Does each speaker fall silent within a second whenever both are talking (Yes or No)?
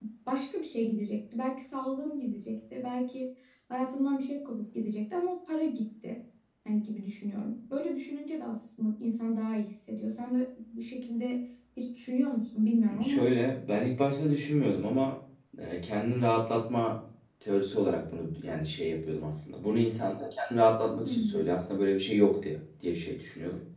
Yes